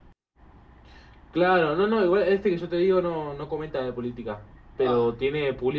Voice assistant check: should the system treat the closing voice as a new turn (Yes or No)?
No